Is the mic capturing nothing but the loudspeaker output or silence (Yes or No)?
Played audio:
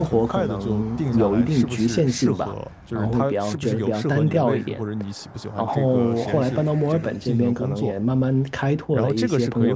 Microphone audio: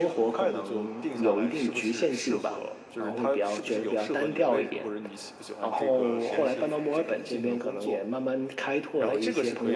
Yes